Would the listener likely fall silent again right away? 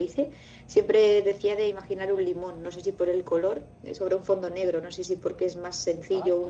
Yes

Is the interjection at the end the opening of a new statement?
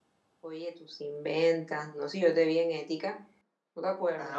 Yes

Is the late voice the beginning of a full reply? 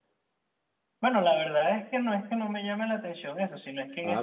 No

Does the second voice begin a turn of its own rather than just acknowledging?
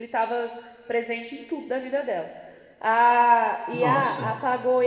No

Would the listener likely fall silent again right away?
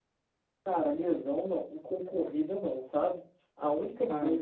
Yes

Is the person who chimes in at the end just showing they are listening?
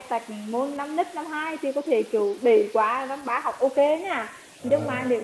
Yes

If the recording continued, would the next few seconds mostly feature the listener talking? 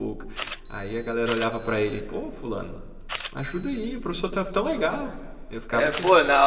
Yes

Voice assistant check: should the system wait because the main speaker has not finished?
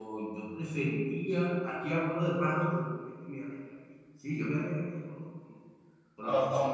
No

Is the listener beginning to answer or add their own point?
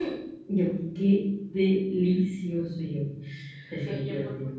Yes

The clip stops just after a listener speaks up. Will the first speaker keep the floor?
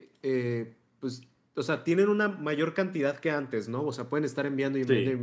Yes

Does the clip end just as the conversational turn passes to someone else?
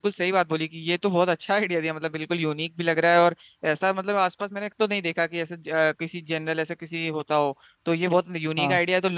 No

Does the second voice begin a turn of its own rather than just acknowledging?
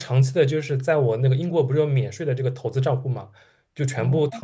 No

